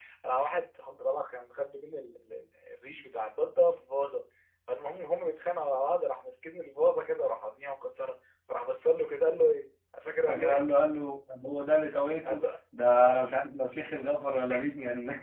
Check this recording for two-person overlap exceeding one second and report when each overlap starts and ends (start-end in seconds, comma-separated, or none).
none